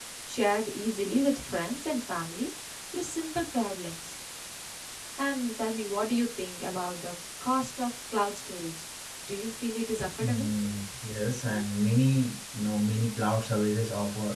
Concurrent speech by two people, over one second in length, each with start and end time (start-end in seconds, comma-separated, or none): none